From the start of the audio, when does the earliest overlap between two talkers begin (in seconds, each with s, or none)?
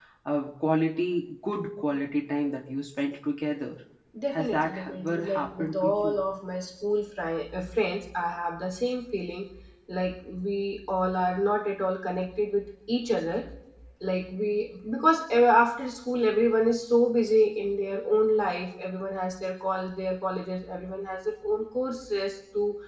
4.4 s